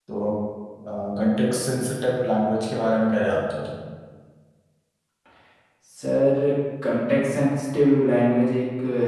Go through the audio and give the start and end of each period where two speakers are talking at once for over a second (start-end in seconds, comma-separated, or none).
none